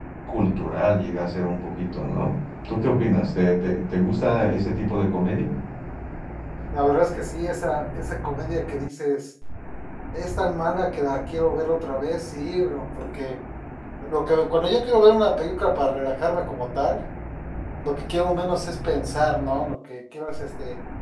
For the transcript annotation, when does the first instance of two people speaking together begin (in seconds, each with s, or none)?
none